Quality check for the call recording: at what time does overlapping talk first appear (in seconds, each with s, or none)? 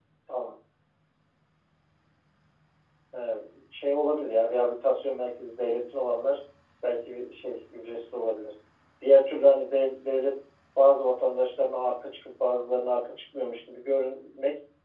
none